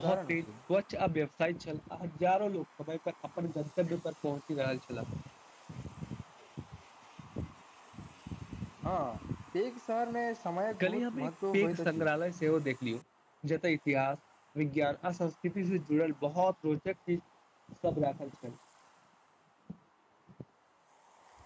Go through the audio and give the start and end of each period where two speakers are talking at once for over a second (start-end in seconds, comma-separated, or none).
10.8-12.1